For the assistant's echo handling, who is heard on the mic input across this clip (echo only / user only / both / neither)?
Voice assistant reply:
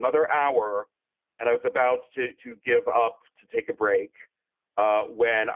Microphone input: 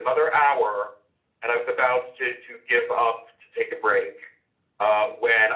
echo only